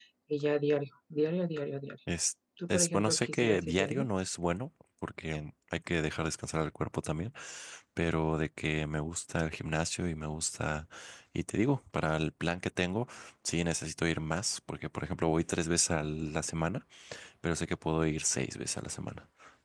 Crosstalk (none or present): present